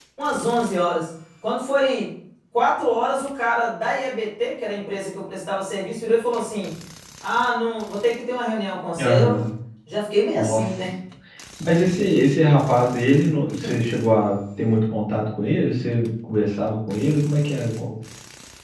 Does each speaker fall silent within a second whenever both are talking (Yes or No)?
Yes